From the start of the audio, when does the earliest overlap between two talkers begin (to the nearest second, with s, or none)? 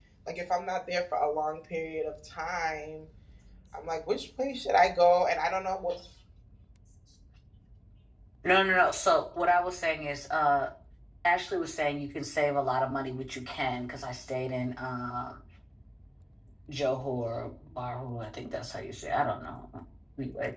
none